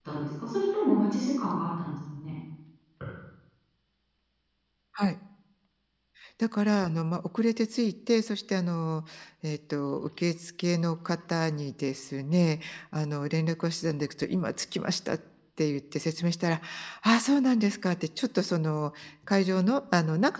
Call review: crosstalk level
none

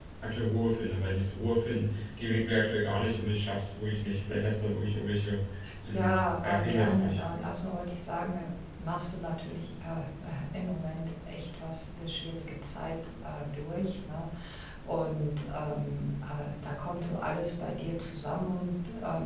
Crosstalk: present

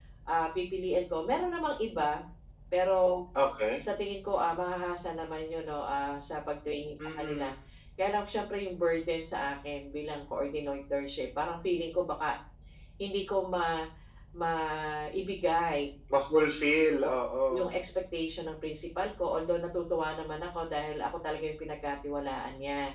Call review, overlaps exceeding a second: none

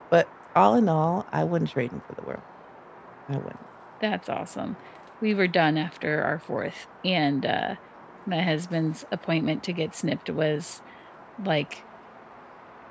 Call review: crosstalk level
none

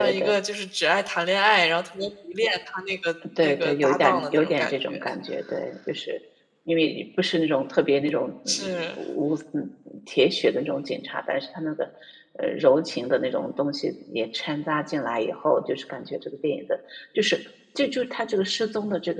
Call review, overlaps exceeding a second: present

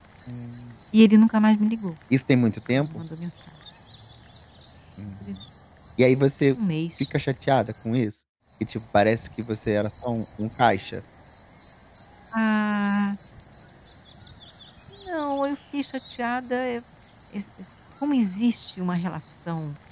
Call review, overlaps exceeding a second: none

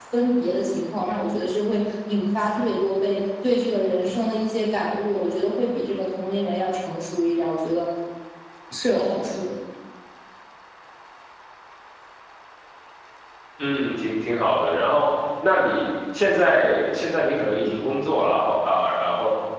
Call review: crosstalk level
none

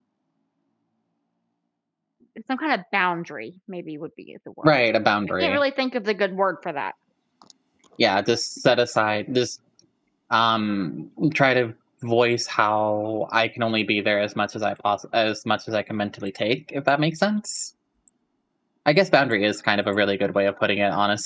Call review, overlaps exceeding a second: none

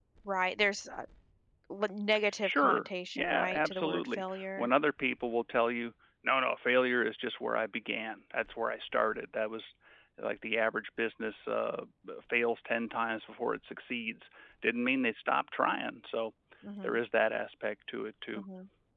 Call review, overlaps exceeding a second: present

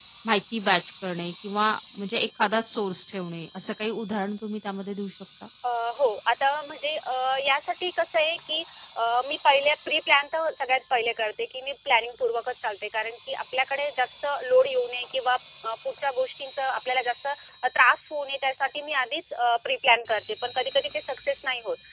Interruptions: none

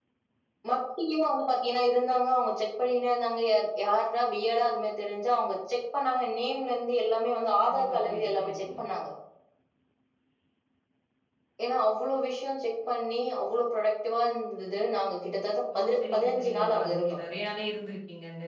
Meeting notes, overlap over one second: present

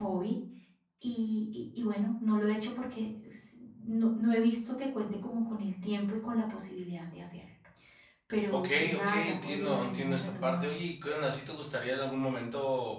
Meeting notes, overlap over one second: present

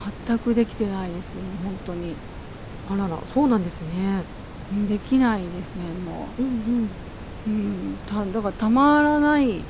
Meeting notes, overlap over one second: none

